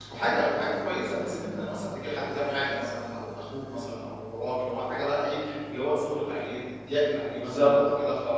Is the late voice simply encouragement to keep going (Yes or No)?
Yes